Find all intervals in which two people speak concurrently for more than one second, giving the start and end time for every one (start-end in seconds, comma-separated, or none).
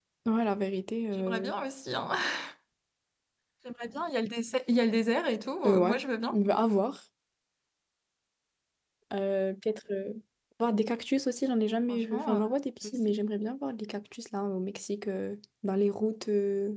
none